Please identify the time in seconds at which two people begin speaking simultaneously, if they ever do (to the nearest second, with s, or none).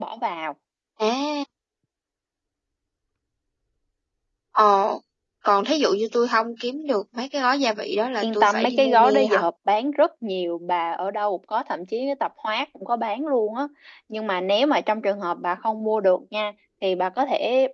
8 s